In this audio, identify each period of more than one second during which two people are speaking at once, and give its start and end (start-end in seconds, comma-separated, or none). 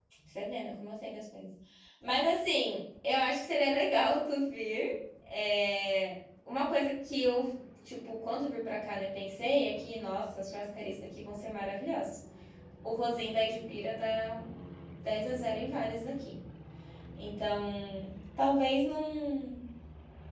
none